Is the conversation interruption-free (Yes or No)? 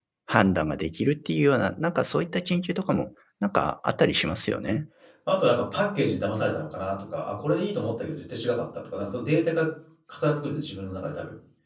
Yes